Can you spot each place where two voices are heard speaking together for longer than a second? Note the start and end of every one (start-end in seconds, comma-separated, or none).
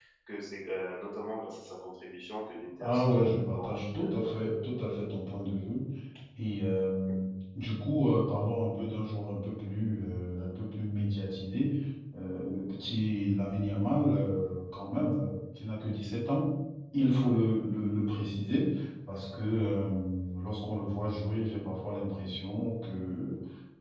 2.8-4.1